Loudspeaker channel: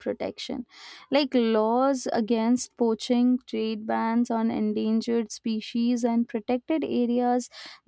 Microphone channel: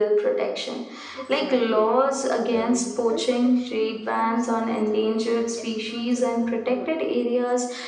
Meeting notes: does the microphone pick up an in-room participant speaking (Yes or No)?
Yes